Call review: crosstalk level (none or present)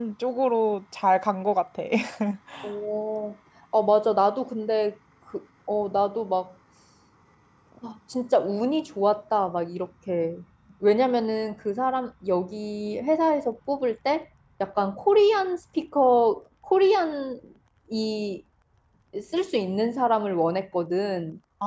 none